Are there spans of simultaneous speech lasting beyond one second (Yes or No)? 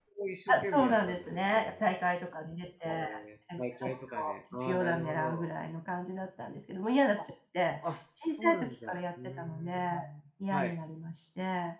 Yes